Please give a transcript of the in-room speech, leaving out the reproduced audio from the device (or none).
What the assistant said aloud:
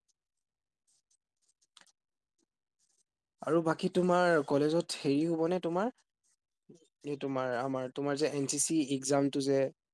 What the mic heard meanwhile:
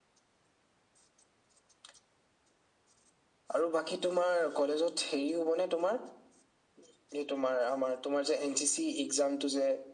none